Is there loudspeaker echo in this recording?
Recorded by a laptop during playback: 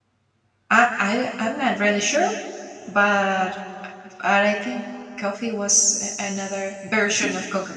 No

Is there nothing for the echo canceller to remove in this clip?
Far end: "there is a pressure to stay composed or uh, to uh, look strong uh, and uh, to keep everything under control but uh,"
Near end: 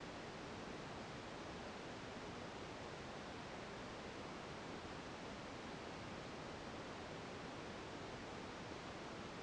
Yes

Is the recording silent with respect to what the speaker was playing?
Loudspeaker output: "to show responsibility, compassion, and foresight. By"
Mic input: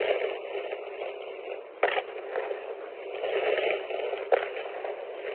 Yes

